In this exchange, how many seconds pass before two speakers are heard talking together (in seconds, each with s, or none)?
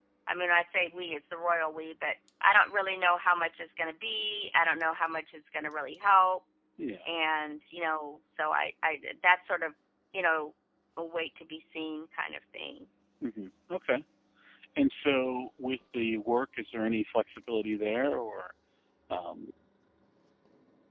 none